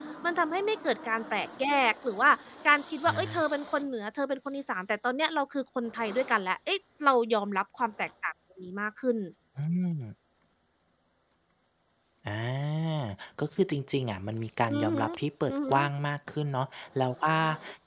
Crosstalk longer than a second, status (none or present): none